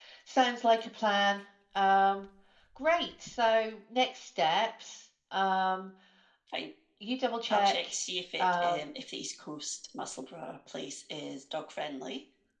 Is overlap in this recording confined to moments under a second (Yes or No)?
Yes